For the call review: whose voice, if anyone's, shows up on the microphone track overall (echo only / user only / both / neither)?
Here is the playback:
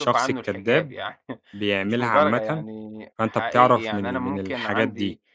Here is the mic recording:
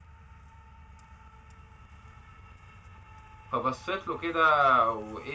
user only